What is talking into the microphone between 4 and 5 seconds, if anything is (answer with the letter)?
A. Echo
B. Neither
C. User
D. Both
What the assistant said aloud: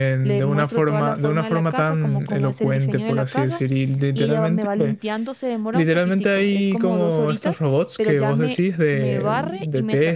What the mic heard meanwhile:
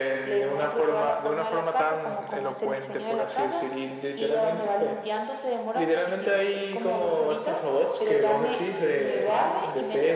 A